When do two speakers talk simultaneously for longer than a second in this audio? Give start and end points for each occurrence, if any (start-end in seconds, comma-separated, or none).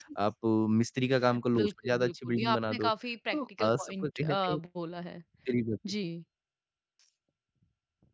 1.3-2.9, 3.3-4.6